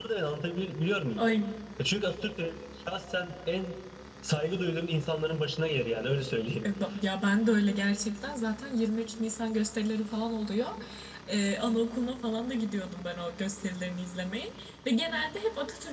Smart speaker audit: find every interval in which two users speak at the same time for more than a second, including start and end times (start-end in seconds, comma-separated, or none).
none